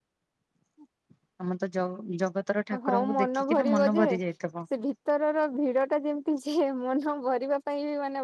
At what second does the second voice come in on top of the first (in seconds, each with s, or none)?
2.7 s